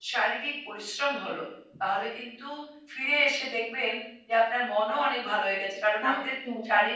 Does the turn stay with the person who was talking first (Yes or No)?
Yes